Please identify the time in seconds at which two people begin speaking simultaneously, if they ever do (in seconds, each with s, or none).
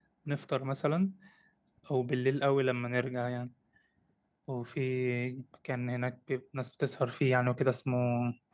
none